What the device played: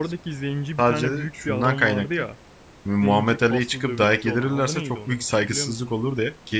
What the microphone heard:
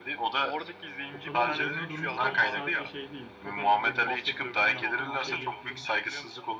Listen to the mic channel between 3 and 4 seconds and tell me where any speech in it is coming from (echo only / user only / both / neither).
both